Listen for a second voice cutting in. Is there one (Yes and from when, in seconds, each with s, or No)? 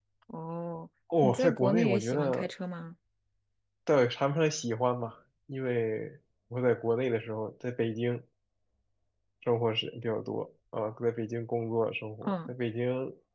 Yes, from 1.2 s